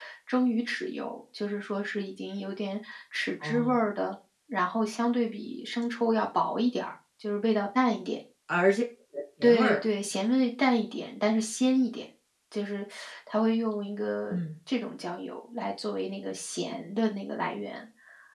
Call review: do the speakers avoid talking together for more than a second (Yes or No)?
Yes